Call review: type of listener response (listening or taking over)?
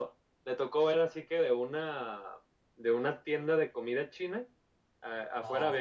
listening